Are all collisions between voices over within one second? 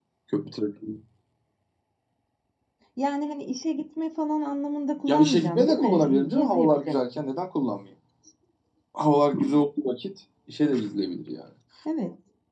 No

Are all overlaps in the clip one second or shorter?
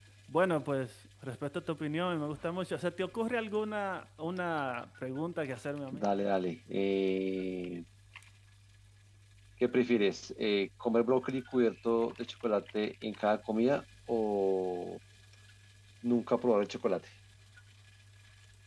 Yes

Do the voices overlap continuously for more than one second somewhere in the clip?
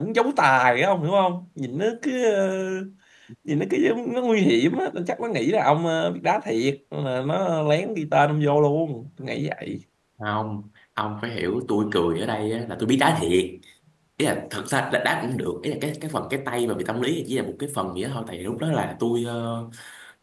No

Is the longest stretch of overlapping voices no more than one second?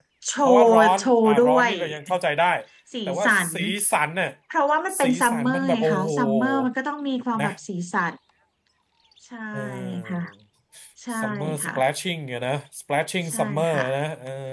No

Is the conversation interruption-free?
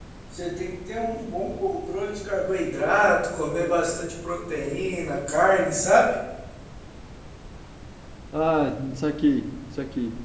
Yes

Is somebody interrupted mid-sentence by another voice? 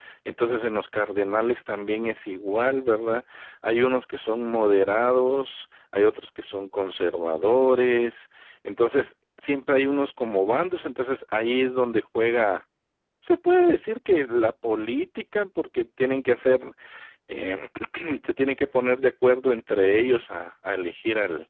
No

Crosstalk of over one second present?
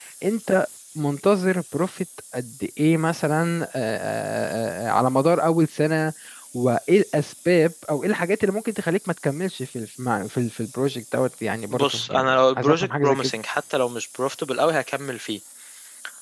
Yes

